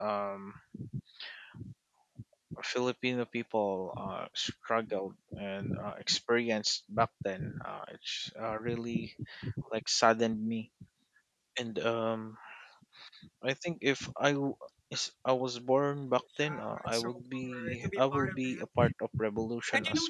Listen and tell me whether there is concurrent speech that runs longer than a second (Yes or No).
Yes